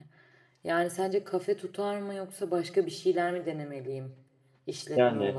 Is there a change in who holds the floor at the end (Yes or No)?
Yes